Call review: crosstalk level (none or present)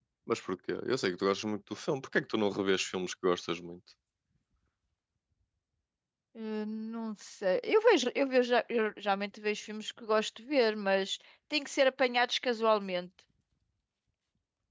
none